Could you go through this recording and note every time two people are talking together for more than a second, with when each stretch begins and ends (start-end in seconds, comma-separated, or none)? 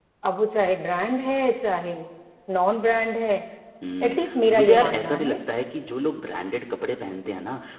4.0-5.4